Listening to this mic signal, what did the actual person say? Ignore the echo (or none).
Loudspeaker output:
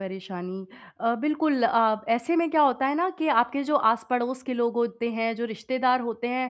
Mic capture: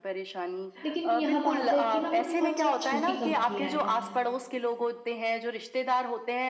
लेकिन यह बात है कि न वो बहुत ज़्यादा छोटी कंपनियाँ हैं।